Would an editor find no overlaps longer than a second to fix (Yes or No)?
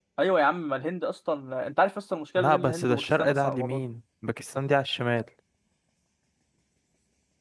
No